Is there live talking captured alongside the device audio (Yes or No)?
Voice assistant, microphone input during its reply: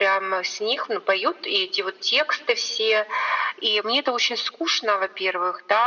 No